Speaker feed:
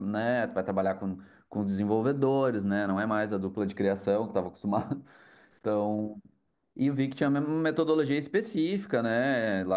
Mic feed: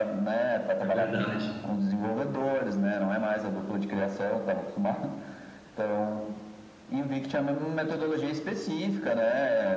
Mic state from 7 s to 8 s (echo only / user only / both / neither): echo only